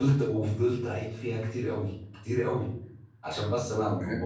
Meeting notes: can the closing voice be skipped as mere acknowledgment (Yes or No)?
No